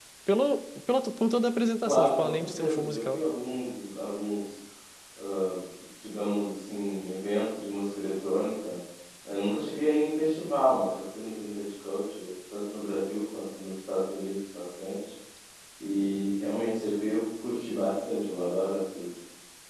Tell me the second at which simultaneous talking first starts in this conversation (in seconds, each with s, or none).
1.8 s